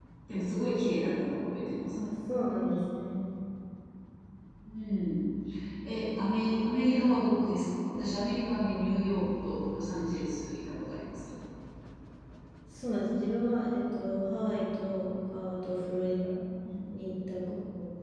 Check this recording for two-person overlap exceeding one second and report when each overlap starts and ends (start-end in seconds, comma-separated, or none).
none